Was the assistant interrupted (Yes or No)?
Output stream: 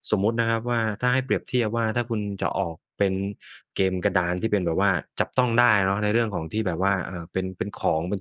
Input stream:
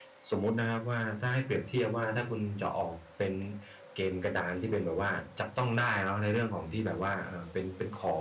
No